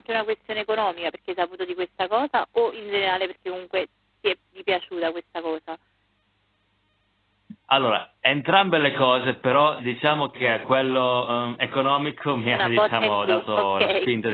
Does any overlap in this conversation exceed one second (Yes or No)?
Yes